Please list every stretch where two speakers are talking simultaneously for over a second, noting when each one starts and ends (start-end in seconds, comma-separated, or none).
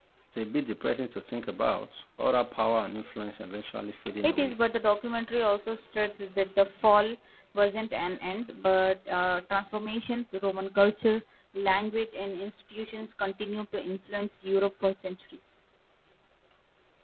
none